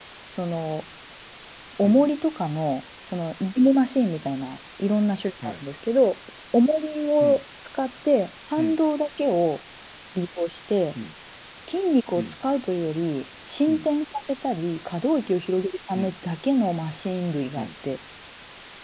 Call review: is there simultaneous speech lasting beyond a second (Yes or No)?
No